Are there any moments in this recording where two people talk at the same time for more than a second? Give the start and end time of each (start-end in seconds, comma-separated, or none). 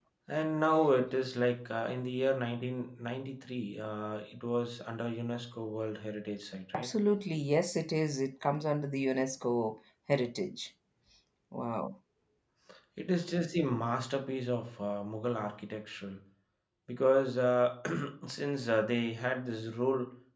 none